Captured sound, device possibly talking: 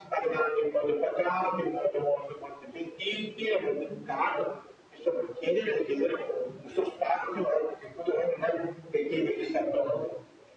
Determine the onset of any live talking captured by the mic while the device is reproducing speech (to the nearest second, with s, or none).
none